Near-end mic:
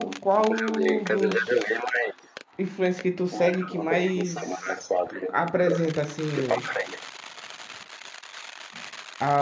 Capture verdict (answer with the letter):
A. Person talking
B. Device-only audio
A